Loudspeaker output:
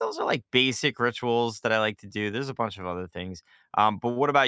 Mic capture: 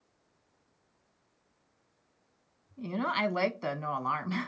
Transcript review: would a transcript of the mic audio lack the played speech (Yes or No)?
Yes